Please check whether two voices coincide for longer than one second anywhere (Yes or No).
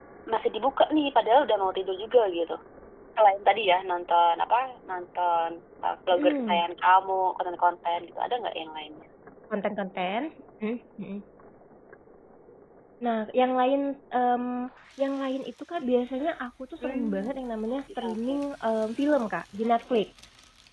No